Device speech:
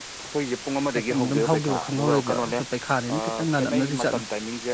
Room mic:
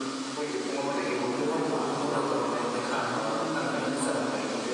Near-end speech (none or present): none